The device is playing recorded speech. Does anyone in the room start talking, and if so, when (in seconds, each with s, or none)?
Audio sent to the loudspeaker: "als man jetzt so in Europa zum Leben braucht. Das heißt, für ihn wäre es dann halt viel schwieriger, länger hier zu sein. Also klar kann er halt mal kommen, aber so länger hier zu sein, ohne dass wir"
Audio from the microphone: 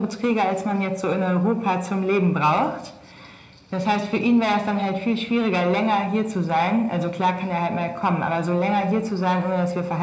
none